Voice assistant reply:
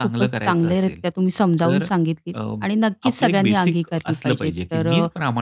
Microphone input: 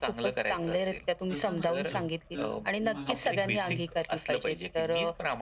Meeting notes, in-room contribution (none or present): present